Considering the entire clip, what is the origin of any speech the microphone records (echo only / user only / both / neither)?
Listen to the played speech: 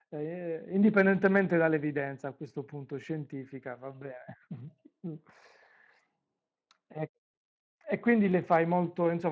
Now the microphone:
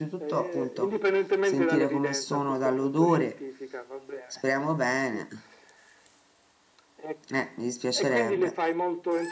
both